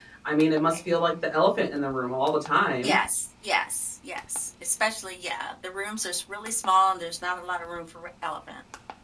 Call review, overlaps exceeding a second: none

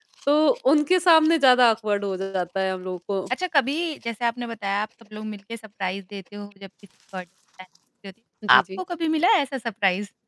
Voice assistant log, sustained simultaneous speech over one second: none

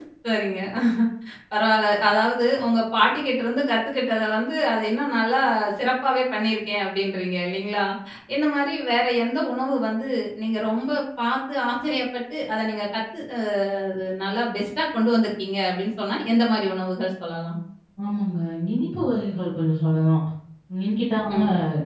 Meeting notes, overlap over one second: none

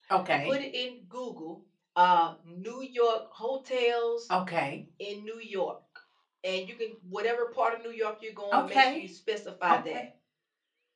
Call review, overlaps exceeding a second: none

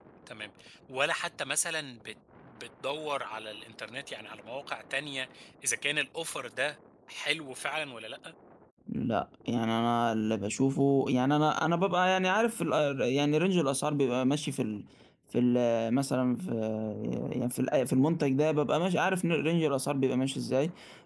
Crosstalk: none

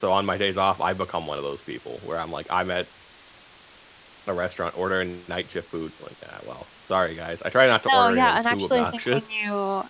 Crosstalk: present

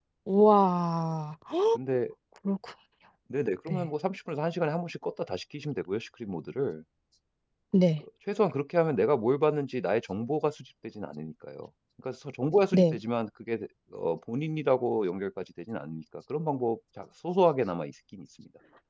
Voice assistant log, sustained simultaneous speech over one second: none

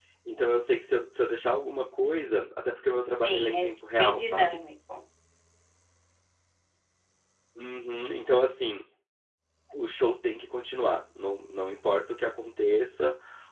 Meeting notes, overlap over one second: present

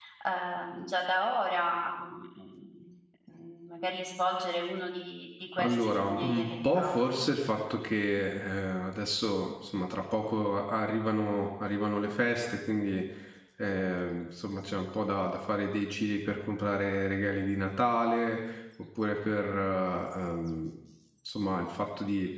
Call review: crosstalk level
present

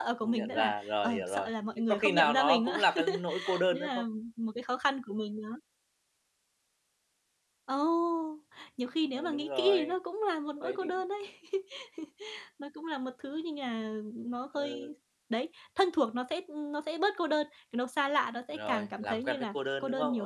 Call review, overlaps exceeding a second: present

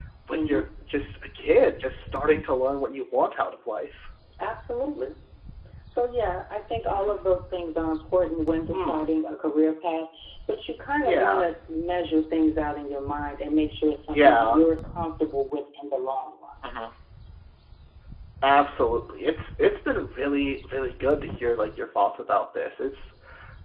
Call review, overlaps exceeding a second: none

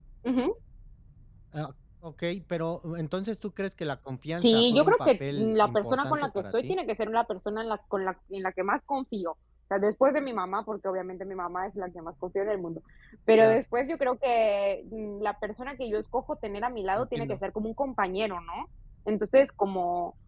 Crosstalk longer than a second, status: present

